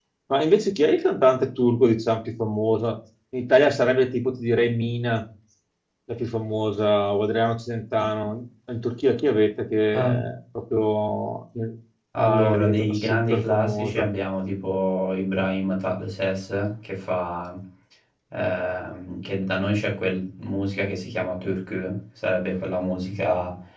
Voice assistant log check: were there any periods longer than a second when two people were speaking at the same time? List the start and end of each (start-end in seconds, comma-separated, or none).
12.2-14.1